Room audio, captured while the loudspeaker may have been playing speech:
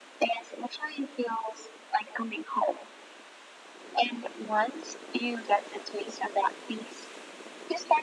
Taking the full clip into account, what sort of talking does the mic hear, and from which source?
echo only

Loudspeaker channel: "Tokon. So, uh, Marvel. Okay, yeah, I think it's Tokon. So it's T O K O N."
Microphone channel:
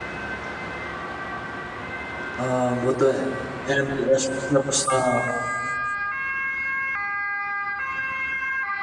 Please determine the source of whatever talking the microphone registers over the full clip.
user only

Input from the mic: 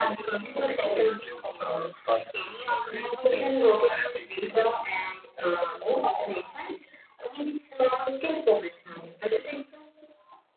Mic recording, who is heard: echo only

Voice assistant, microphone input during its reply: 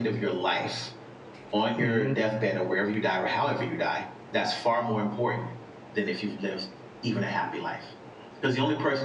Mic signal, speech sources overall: both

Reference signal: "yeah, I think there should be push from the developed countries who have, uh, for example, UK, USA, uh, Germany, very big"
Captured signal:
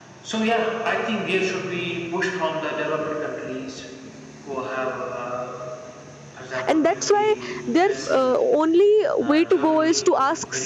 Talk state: both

